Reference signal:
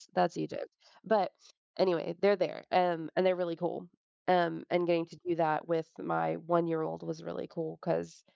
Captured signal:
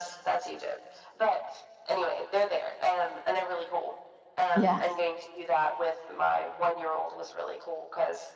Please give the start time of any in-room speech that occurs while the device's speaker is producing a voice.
4.5 s

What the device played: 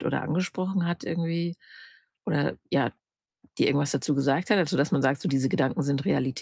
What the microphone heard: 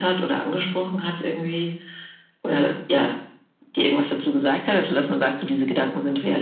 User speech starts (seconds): none

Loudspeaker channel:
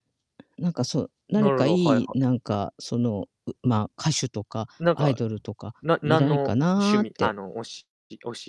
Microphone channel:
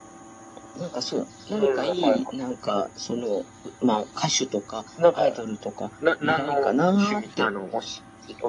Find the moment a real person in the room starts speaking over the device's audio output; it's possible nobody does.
none

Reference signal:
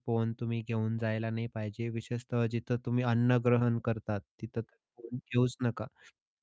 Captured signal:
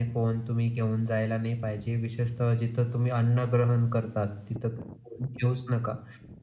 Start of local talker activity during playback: none

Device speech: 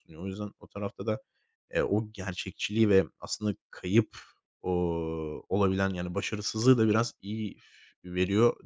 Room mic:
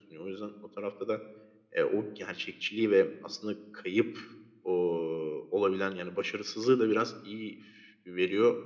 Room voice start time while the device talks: none

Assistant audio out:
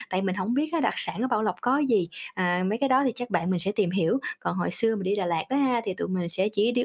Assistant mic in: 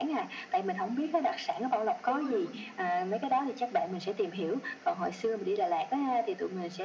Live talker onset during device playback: 2.1 s

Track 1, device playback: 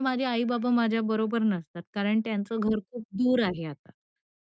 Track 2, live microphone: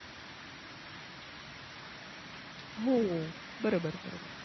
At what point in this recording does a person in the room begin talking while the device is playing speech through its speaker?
2.8 s

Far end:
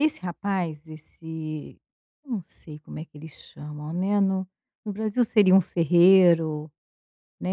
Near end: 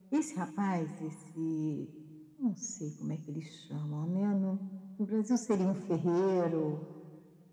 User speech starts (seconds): none

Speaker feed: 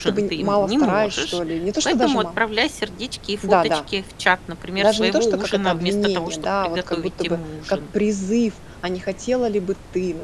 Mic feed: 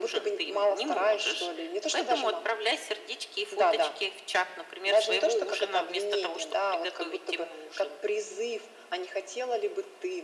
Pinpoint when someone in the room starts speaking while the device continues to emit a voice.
none

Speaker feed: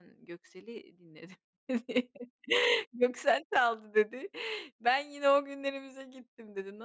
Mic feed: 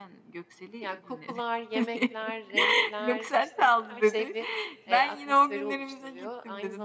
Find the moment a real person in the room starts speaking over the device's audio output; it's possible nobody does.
0.8 s

